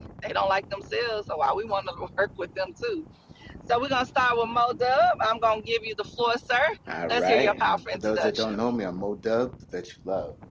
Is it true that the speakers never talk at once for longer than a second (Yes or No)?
No